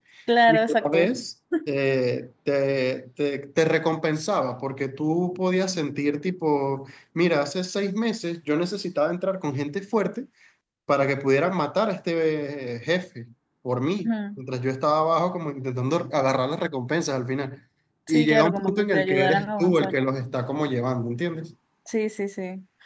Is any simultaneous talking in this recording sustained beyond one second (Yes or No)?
Yes